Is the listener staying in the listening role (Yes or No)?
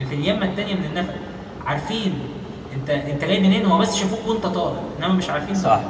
No